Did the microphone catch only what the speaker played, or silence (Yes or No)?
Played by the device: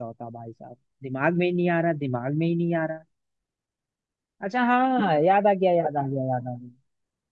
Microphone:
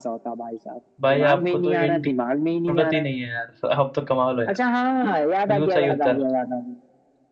No